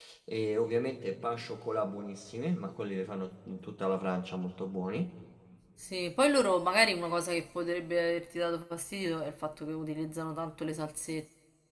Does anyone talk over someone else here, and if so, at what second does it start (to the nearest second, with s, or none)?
none